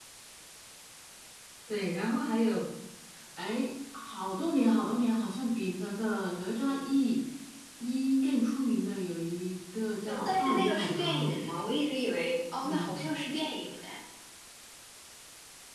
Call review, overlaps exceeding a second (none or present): present